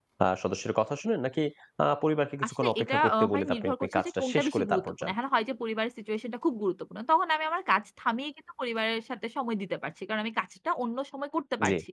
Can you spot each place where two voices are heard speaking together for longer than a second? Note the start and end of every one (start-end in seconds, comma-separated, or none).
2.6-5.1